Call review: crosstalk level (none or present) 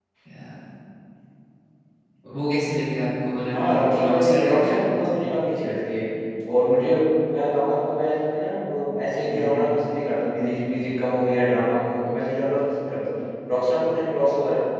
present